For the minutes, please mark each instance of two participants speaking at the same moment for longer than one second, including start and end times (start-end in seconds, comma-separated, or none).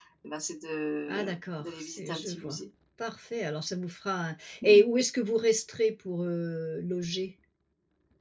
1.1-2.6